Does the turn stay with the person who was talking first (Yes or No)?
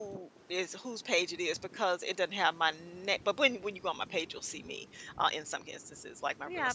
No